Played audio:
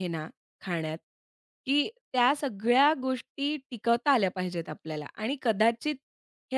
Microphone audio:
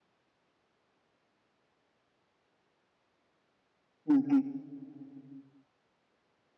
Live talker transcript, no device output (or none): हं, हं.